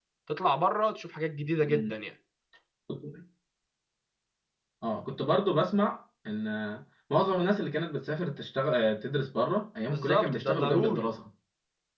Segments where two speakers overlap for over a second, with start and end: 9.9-11.1

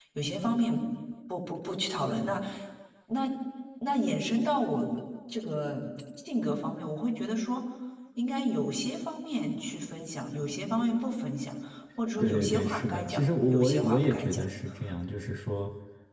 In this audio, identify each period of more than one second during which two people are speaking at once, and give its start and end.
12.2-14.4

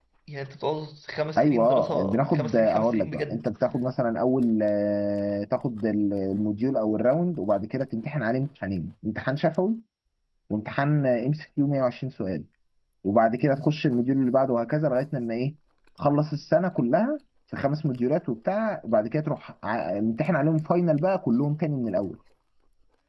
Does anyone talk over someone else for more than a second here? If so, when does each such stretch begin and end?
1.4-3.5

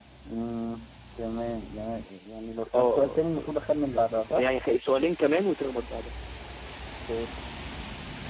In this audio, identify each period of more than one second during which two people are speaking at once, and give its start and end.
2.7-4.4

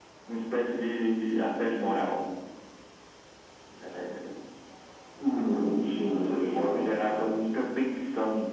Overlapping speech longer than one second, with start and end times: 5.6-7.3

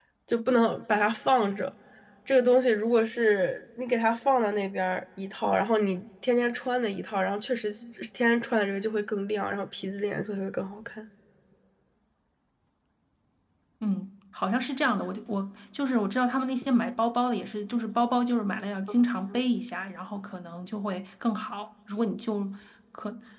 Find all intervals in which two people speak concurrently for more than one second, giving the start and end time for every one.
none

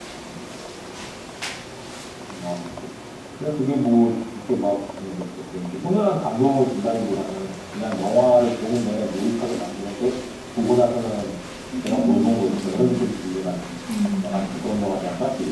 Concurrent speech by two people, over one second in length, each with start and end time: 11.8-13.0

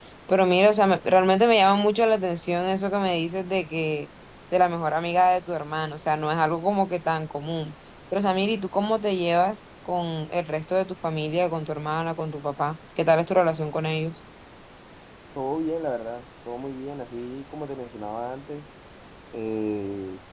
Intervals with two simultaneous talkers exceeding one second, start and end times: none

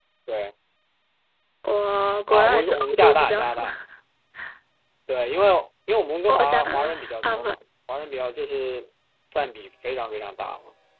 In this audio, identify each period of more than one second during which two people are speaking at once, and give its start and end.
2.3-3.6, 6.3-7.5

